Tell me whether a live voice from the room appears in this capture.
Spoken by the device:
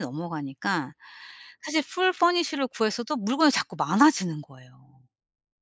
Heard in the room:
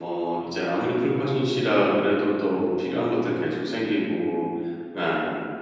Yes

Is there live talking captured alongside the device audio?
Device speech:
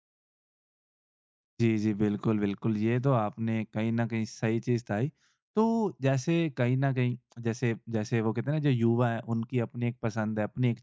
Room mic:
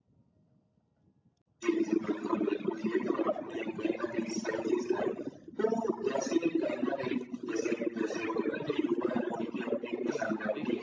Yes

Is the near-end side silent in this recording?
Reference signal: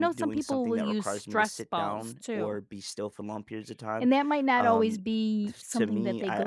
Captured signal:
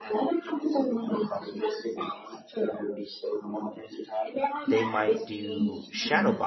No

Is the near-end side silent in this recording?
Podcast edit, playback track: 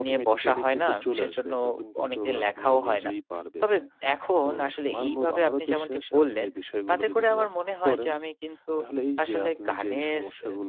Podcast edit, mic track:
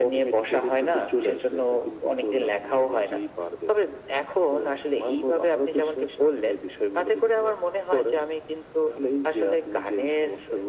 Yes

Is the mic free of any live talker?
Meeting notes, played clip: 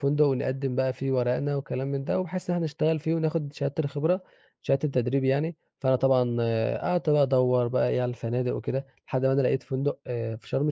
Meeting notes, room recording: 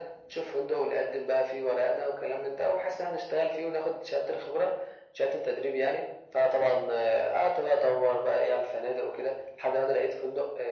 Yes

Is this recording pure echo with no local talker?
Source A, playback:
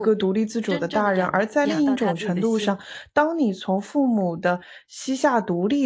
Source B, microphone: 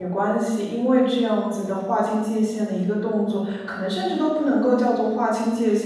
No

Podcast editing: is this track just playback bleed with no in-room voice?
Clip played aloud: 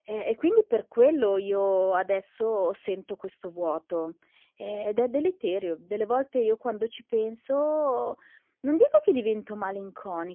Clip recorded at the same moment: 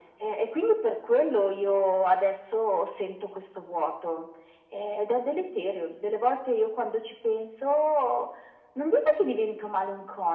Yes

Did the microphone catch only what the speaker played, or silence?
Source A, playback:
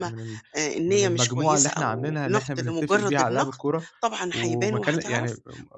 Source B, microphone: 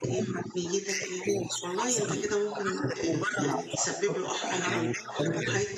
No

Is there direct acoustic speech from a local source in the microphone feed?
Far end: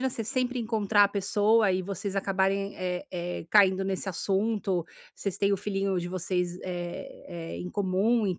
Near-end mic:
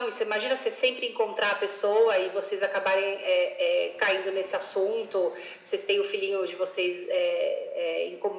No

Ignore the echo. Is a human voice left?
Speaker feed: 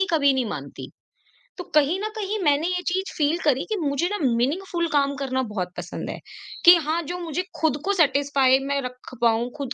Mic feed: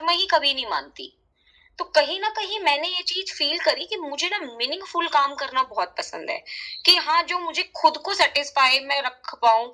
No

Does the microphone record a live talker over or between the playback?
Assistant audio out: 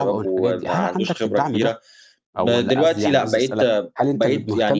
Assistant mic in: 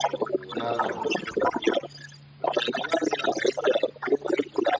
Yes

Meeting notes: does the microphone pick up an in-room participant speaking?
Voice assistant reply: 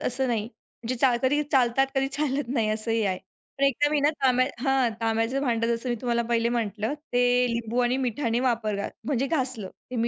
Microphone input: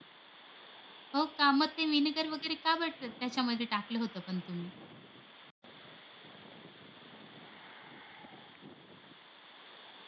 Yes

